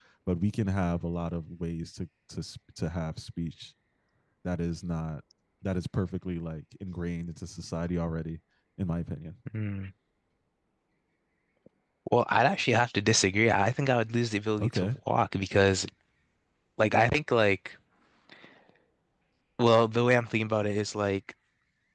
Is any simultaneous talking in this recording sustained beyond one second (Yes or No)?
No